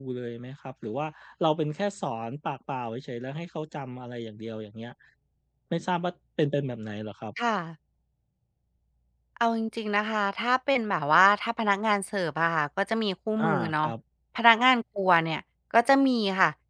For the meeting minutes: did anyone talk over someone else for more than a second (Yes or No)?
No